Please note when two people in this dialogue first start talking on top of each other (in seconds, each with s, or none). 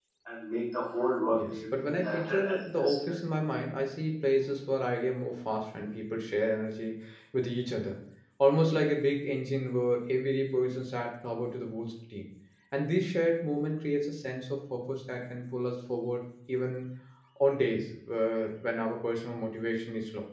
1.3 s